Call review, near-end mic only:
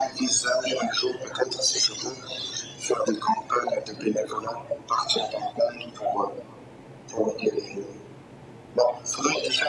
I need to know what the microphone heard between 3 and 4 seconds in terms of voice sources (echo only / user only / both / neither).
echo only